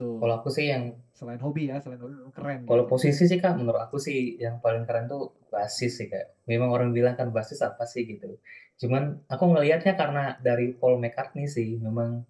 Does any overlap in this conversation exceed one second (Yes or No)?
No